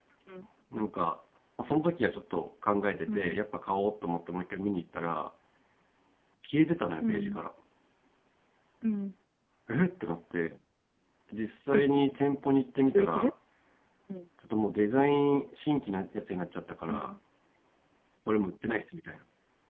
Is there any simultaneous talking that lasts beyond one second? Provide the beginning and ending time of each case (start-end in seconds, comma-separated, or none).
none